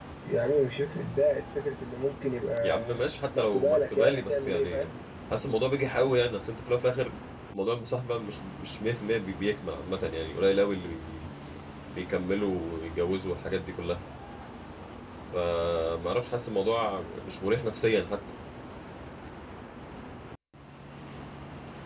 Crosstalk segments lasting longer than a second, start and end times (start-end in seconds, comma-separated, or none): 3.4-4.9